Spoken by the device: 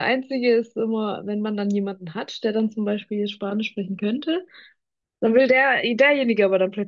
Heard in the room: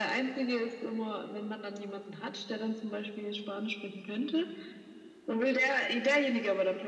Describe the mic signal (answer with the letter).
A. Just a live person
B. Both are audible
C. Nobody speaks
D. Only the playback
D